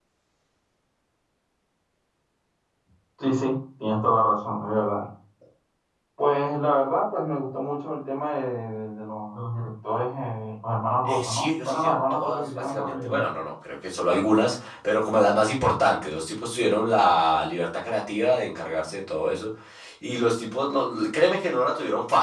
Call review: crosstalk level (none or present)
present